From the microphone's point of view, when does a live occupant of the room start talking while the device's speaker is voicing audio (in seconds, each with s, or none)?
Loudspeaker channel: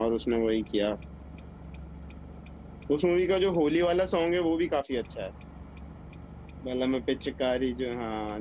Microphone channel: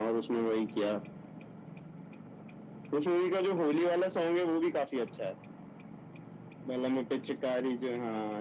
none